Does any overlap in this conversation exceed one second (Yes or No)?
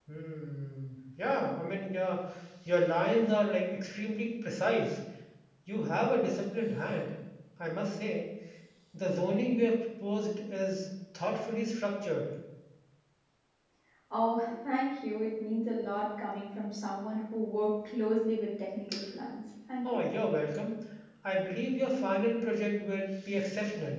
No